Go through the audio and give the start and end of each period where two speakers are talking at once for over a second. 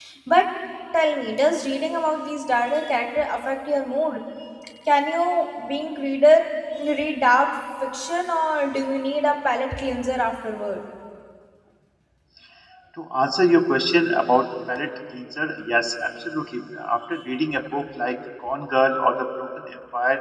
none

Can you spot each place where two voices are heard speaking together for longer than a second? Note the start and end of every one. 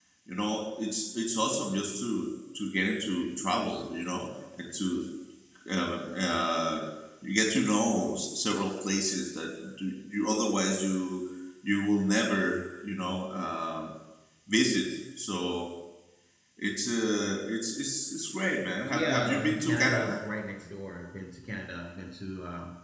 18.9-20.2

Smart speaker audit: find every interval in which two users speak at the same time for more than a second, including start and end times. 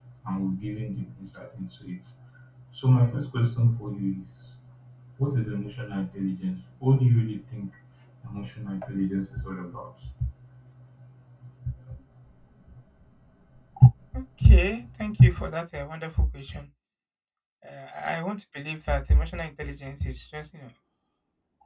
none

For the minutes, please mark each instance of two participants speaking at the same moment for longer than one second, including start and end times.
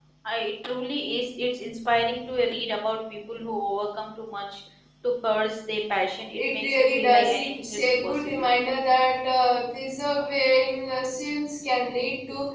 6.4-8.5

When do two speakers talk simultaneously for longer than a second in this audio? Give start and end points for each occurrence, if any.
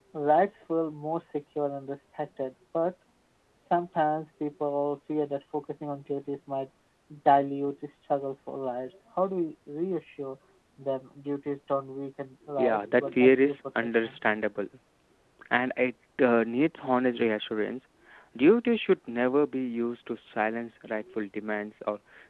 12.6-14.2

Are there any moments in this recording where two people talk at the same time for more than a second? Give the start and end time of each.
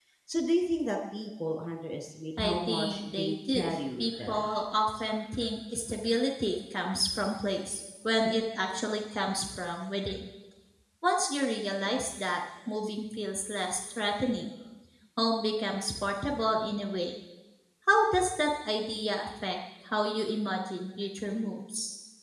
2.4-4.5

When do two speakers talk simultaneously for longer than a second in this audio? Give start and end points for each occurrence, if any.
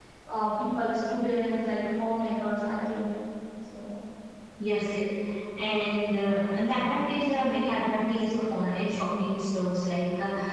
none

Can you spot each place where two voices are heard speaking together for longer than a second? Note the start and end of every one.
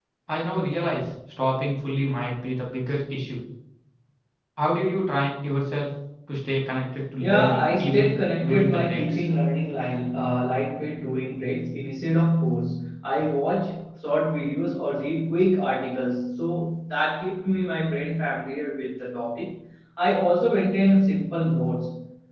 7.2-9.2

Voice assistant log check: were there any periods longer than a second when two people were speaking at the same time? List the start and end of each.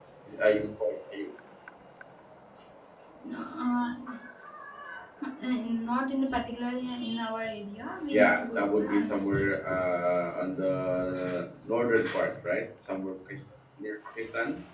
8.1-9.4

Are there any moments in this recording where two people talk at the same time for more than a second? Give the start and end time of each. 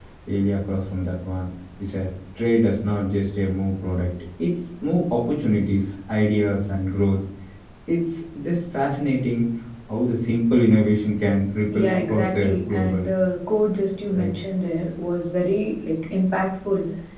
11.7-13.1

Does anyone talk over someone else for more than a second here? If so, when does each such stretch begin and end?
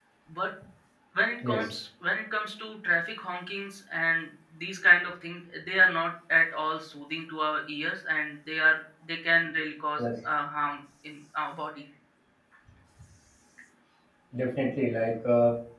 none

